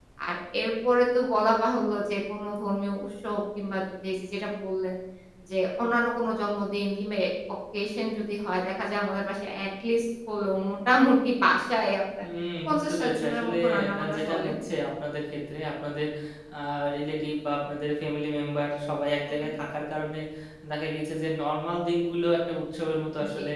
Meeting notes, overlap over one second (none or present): present